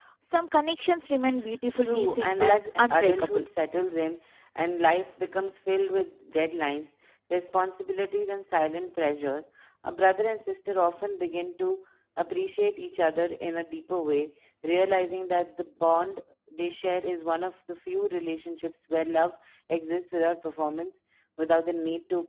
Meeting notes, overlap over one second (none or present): present